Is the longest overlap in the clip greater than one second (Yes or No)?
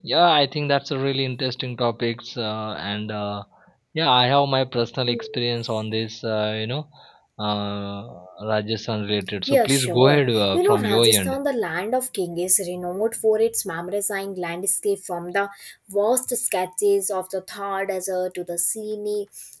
Yes